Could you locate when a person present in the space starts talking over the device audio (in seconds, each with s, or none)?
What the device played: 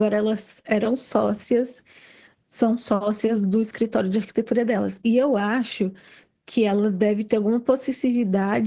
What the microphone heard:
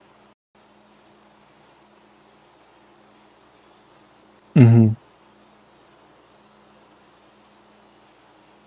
4.6 s